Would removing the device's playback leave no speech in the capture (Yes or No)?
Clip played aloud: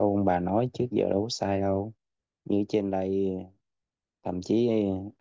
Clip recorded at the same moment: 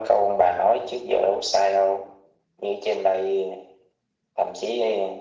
Yes